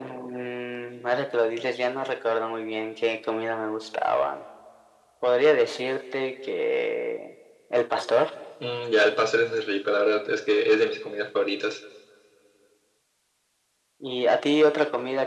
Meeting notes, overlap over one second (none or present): none